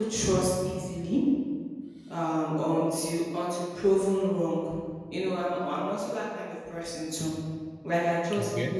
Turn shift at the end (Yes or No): No